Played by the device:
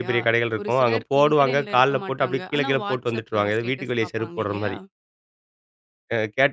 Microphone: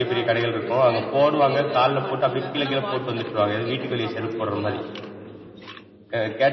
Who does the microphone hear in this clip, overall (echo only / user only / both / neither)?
echo only